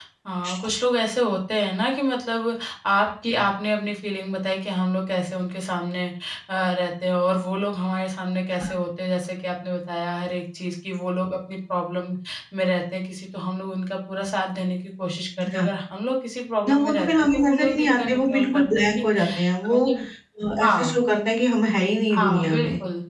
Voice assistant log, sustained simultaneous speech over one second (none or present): present